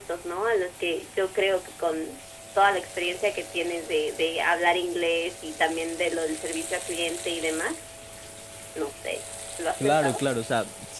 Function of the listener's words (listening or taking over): taking over